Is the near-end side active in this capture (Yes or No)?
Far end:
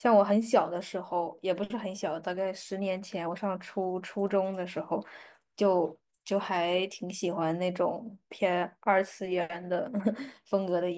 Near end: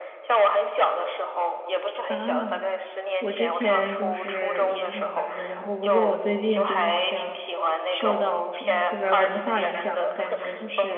Yes